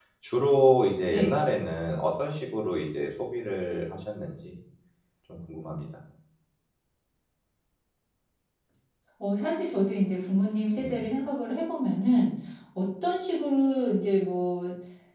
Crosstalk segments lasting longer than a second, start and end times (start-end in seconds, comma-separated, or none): none